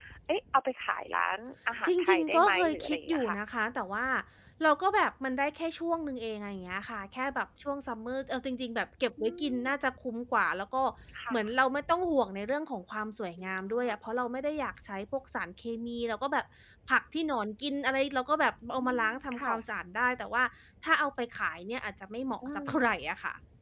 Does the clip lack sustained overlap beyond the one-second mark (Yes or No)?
No